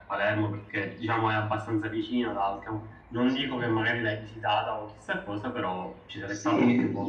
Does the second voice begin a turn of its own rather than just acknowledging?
Yes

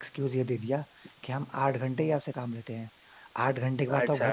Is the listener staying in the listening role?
Yes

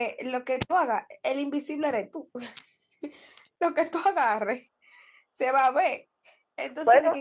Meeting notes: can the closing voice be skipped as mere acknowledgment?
Yes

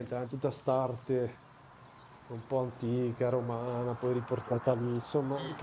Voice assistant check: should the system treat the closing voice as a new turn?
No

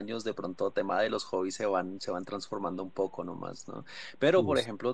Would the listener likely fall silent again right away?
Yes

